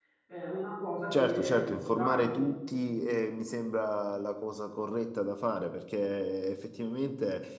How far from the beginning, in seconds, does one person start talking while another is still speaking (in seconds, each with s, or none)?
1.1 s